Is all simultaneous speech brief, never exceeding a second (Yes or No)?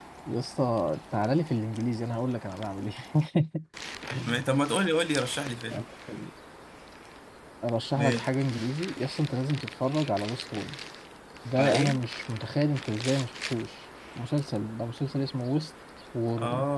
Yes